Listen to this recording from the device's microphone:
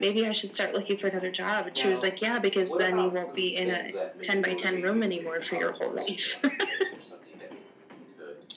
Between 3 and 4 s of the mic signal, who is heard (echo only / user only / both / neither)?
both